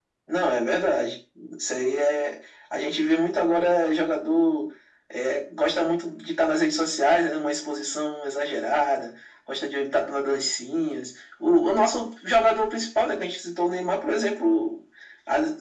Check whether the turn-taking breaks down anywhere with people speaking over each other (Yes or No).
No